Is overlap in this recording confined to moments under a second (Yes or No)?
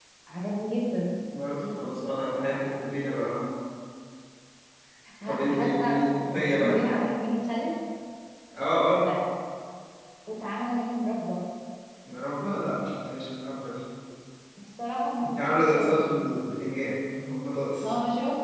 No